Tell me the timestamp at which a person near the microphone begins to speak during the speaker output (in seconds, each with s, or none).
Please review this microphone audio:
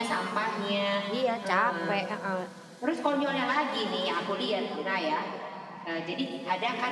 1.1 s